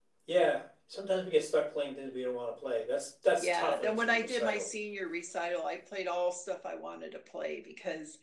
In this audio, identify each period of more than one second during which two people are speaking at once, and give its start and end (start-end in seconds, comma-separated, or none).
3.4-4.7